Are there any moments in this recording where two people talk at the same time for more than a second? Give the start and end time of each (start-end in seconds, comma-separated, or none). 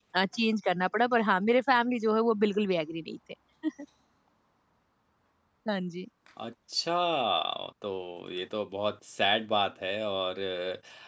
none